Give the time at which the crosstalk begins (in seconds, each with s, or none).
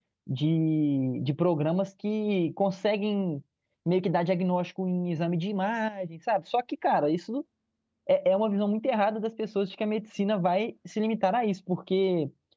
none